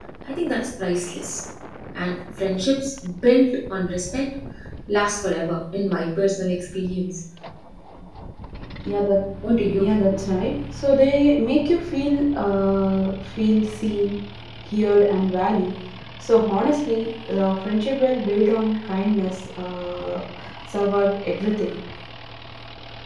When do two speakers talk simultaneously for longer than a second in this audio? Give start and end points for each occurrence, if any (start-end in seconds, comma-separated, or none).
none